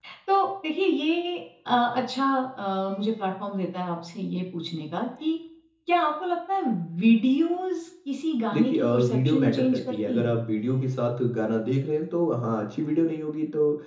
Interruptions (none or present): present